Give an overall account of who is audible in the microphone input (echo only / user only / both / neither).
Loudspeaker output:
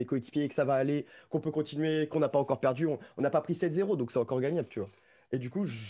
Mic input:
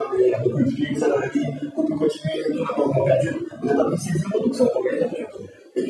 echo only